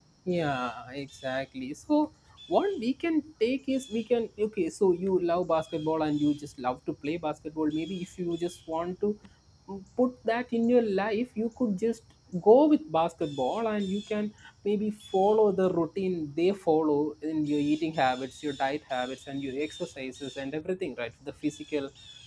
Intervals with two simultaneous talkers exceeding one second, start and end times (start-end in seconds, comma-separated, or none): none